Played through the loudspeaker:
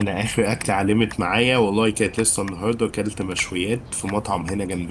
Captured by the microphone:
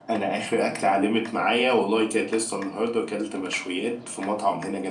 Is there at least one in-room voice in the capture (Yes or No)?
No